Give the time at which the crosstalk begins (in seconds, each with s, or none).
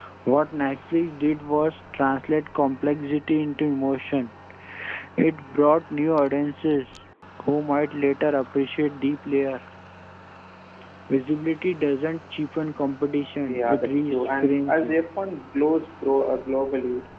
13.4 s